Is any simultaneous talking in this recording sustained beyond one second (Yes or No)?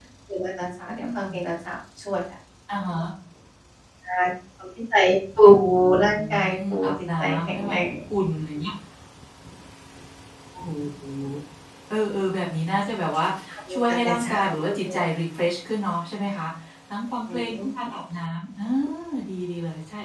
Yes